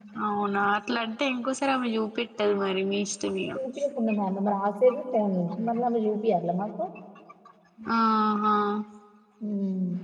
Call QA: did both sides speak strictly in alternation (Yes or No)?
Yes